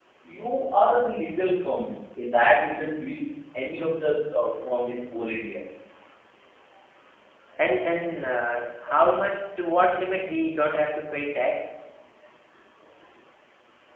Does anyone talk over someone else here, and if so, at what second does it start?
none

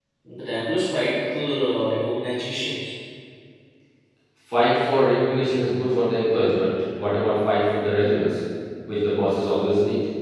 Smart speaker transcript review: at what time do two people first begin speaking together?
none

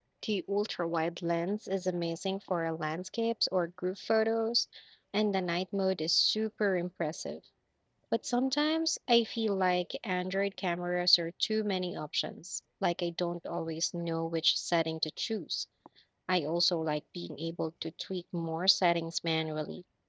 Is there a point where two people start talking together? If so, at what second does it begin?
none

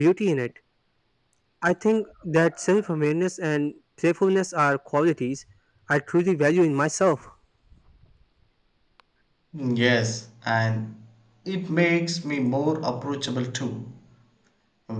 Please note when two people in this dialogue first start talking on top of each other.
none

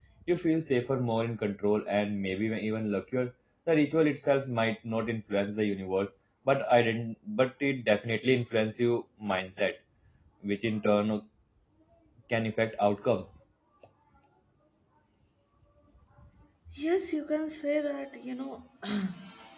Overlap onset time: none

